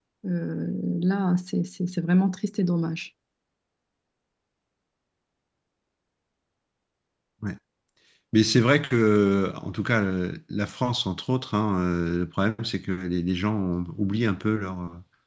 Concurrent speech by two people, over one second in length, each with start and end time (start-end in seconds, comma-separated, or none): none